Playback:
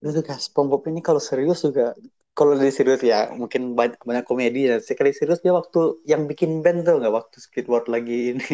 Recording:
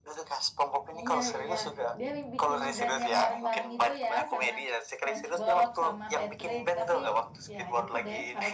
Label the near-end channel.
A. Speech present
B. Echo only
A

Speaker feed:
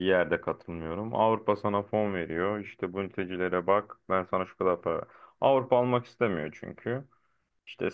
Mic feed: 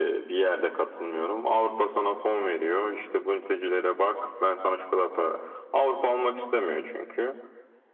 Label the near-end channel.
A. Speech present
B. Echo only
B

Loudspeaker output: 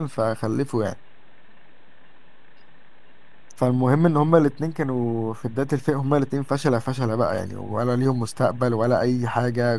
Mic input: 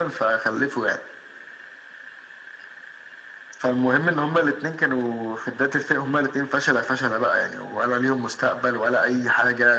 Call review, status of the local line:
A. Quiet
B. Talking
A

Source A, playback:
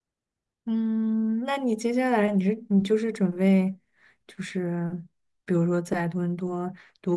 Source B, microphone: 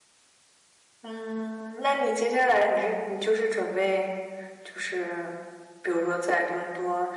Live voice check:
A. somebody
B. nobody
B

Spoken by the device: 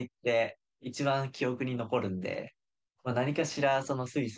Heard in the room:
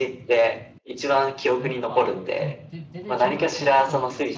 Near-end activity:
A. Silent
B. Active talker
B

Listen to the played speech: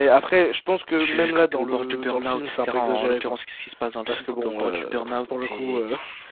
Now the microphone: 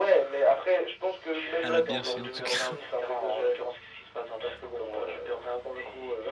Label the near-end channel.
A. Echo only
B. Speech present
B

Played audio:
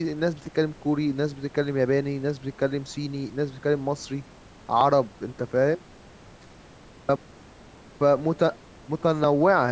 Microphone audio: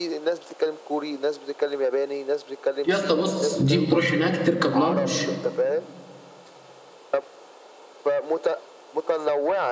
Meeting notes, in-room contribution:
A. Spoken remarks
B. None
A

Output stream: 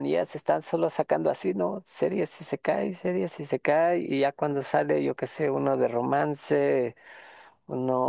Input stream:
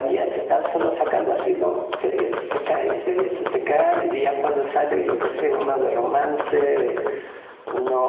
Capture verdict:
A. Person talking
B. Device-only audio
B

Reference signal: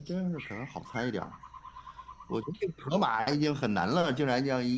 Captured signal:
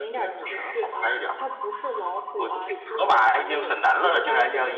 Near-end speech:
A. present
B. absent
A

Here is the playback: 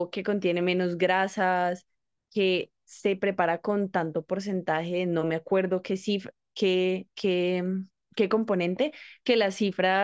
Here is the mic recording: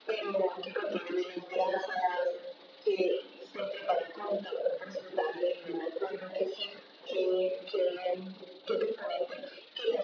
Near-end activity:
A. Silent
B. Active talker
A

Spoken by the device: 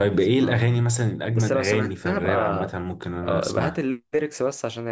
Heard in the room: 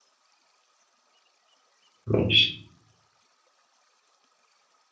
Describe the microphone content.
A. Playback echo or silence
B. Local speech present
B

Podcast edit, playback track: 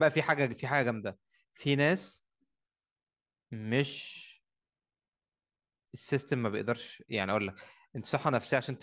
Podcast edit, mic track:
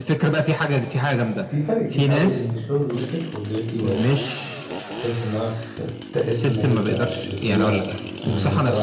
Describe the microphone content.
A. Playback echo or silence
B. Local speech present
B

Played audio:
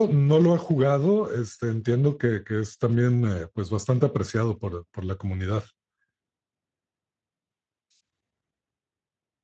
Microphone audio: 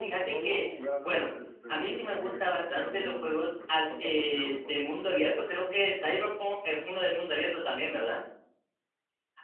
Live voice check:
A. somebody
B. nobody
A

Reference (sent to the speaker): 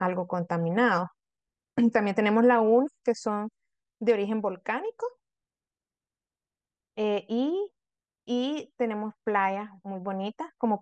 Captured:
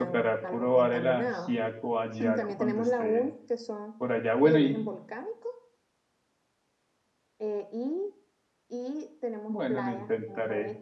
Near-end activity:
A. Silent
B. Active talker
B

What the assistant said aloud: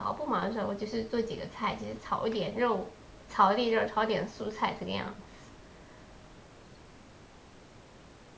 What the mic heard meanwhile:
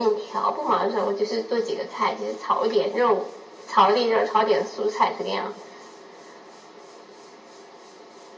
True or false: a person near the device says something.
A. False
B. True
A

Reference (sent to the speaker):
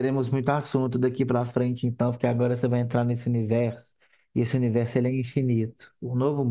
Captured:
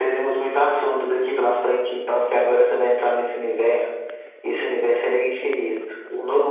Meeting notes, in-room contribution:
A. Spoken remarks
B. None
B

